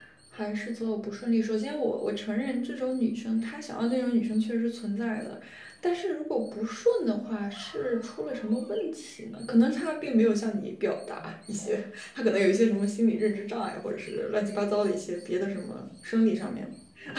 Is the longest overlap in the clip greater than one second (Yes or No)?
No